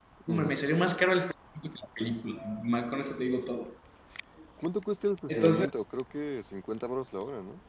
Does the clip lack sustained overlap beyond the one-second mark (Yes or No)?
Yes